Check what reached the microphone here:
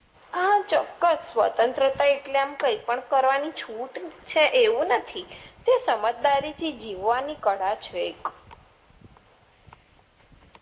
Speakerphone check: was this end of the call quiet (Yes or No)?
Yes